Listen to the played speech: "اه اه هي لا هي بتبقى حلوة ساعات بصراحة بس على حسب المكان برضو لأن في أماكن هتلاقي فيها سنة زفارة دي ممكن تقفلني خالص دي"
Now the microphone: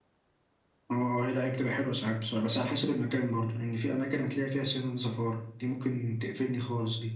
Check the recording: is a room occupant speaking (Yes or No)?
No